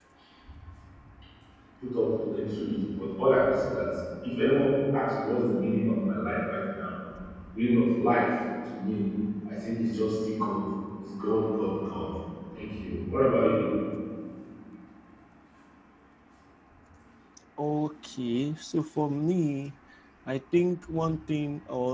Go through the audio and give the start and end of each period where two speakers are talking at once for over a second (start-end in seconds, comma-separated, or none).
none